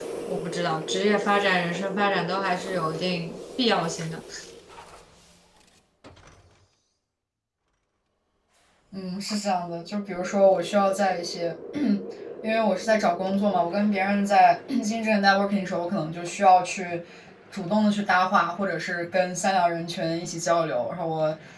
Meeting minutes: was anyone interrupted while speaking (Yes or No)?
No